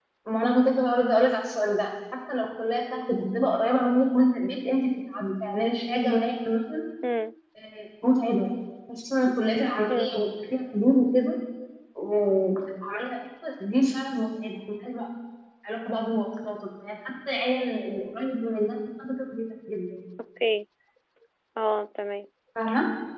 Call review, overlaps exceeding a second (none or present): none